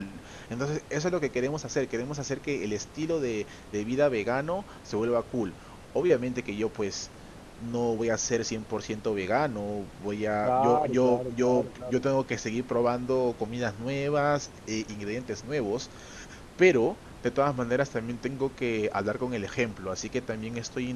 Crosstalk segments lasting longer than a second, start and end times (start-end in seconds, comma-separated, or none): 10.4-12.0